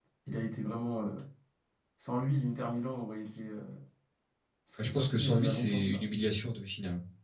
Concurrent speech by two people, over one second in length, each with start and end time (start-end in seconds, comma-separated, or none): 4.8-6.0